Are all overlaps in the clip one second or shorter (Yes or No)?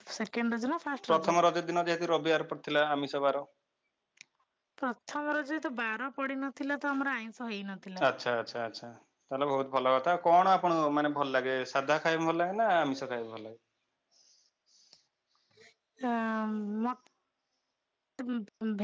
Yes